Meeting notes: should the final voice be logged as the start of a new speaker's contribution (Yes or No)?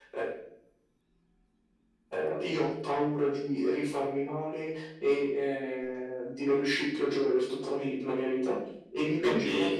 No